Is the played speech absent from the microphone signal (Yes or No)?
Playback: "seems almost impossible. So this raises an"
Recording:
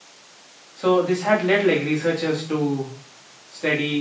Yes